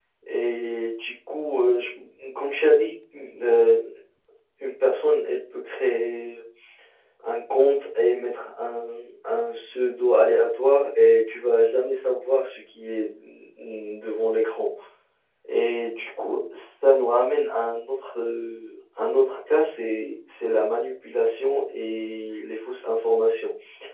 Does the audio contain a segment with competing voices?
No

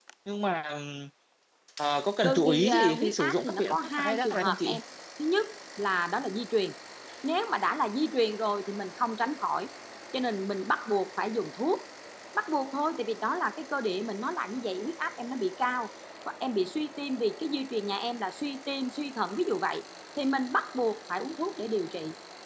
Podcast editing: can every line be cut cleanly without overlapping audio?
No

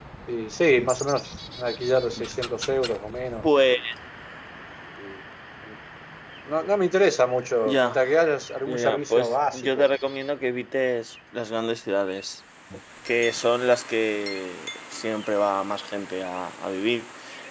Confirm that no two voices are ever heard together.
No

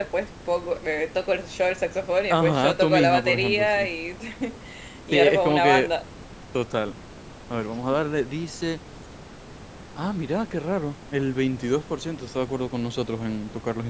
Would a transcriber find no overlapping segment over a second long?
No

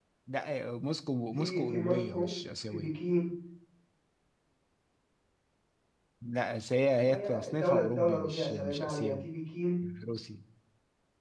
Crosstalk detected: Yes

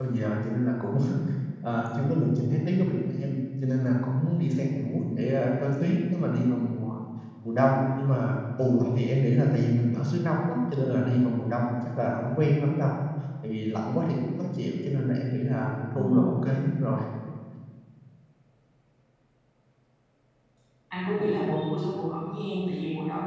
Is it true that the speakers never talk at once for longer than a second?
Yes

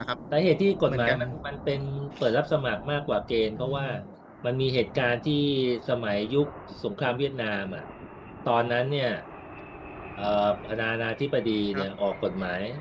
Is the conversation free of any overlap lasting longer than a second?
Yes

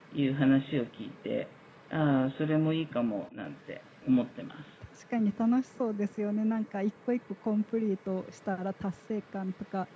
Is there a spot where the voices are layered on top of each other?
No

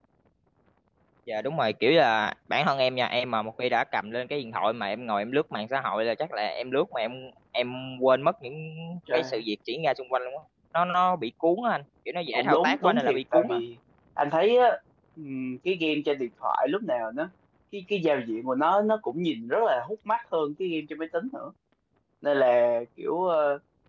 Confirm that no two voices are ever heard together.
No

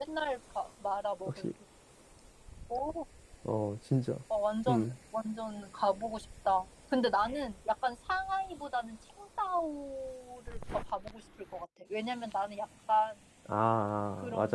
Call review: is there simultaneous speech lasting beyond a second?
No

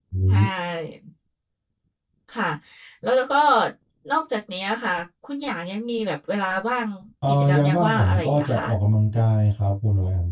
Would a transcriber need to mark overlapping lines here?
Yes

